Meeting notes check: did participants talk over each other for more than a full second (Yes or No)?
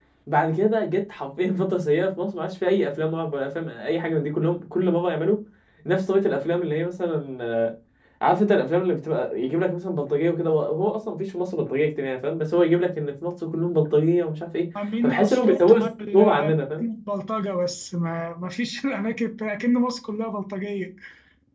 Yes